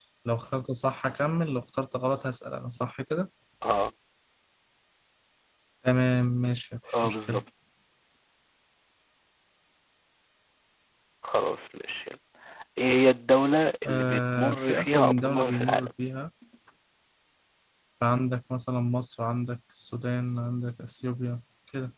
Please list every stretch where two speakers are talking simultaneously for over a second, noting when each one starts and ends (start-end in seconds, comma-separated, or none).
13.8-15.9